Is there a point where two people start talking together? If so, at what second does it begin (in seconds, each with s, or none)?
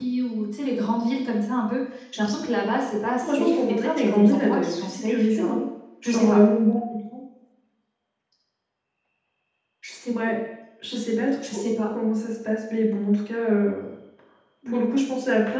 3.2 s